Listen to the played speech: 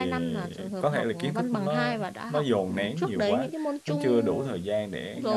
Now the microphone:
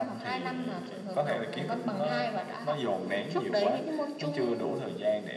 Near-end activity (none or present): none